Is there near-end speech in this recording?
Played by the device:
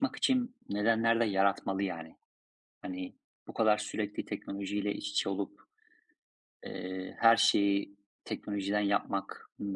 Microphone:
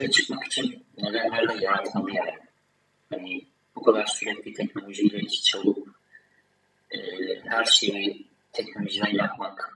No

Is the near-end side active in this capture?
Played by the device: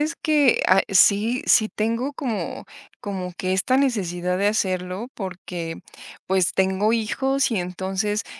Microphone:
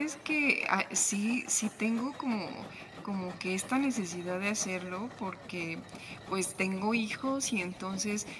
No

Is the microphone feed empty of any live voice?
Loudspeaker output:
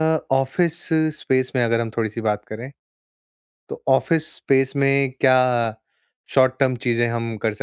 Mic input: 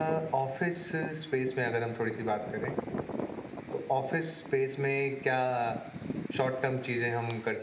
Yes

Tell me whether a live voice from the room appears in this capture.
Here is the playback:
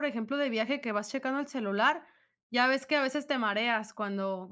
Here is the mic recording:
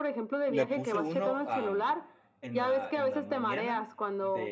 Yes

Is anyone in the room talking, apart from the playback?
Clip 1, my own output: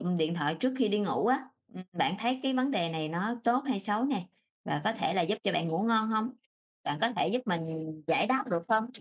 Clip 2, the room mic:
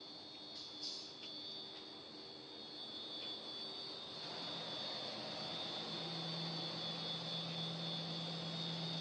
No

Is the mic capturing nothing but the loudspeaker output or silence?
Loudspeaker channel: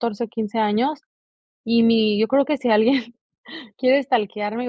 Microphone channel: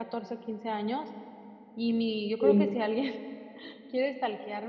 No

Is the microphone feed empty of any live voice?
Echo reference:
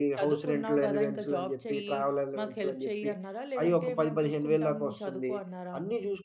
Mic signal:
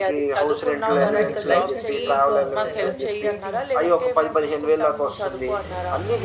No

